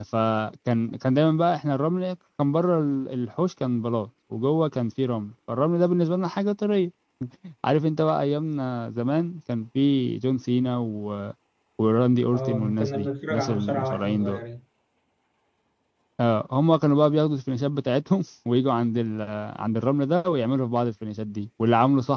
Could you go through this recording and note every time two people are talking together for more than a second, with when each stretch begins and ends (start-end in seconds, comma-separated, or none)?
12.3-14.4